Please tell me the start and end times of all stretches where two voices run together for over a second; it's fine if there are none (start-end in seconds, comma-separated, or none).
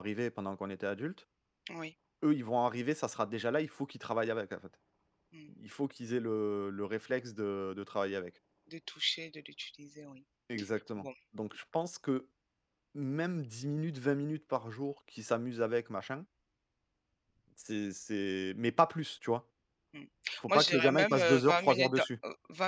20.5-22.1